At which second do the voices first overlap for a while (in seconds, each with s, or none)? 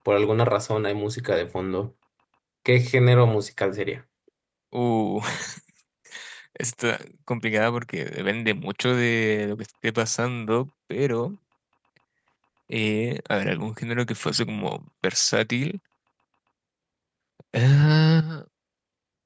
none